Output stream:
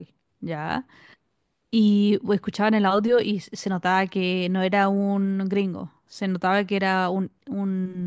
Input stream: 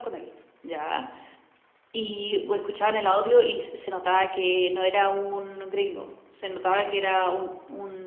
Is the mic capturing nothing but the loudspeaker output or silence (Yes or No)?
Yes